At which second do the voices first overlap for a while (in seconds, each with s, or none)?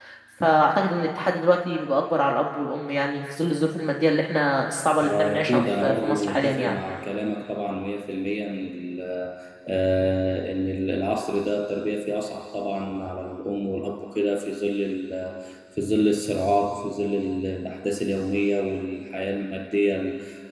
5.0 s